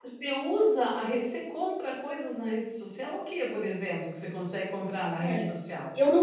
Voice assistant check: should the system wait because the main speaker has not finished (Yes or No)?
No